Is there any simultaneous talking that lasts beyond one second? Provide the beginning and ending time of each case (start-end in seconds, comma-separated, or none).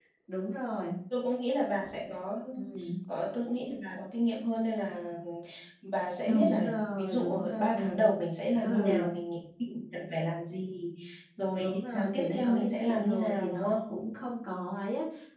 6.2-8.1, 11.6-13.9